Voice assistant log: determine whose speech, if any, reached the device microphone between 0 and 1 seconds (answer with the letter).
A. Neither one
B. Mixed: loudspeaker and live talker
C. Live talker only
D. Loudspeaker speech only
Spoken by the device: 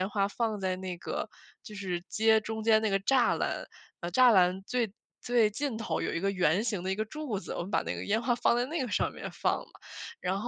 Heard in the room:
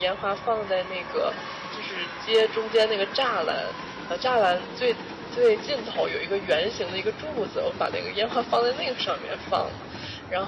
D